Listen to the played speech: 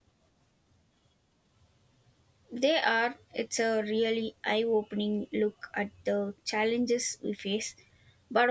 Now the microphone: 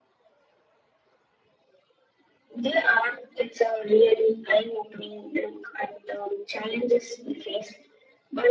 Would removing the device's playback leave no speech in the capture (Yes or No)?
Yes